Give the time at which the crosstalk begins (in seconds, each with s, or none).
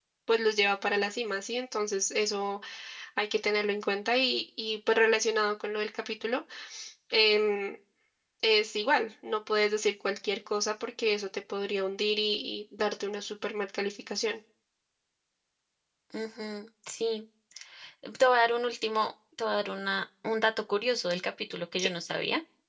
none